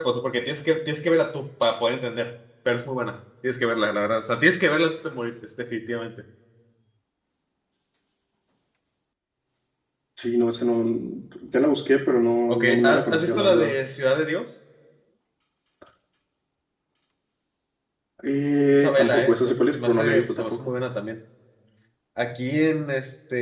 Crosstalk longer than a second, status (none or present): present